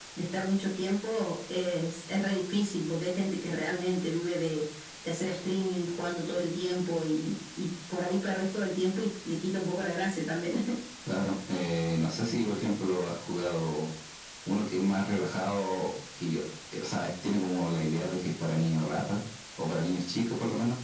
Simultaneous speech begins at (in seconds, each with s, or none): none